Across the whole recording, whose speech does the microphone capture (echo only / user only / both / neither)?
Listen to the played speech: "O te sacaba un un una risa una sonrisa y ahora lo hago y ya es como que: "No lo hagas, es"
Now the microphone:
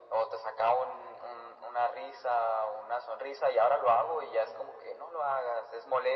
echo only